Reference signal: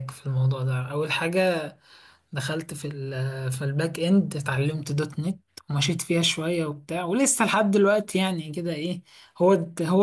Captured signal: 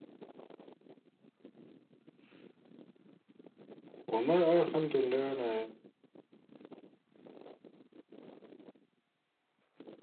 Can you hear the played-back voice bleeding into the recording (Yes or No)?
No